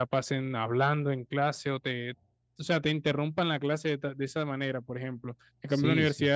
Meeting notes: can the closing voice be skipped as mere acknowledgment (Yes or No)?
Yes